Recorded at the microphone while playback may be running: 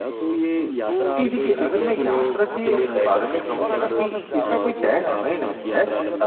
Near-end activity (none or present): present